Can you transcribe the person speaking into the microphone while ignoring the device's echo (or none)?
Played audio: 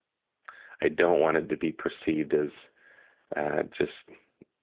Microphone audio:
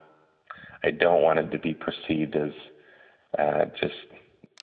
none